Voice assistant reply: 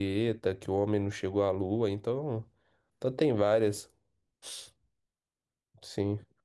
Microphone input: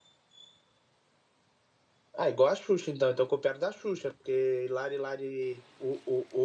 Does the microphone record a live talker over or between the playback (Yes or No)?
Yes